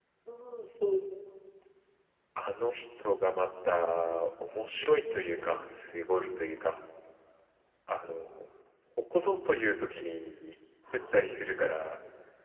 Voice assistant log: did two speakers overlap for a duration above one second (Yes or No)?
No